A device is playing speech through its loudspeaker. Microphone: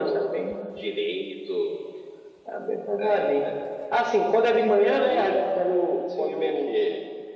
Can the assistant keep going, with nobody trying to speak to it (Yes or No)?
Yes